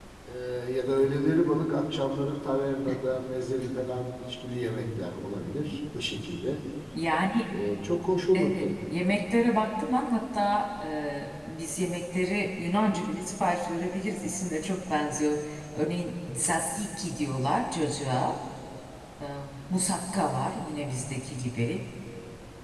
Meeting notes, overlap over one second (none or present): none